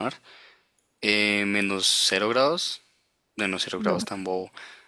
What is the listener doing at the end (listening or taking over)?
listening